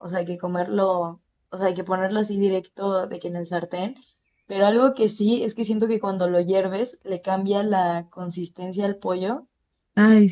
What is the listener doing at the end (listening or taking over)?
listening